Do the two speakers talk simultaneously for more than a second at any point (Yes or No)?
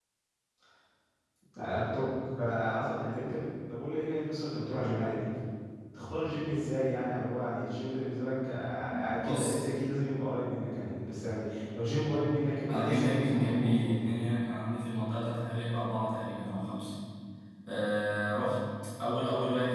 Yes